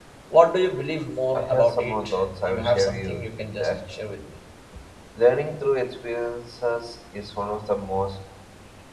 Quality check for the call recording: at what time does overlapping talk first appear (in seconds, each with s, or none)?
1.3 s